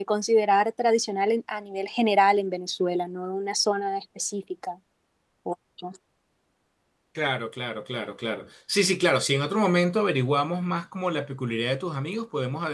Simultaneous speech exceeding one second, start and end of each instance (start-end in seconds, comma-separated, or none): none